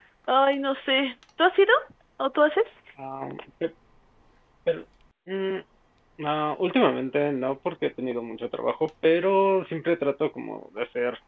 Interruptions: none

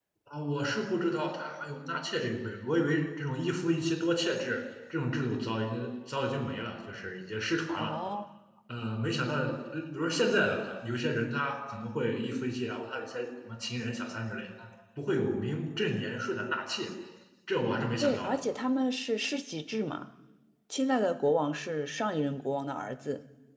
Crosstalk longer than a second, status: none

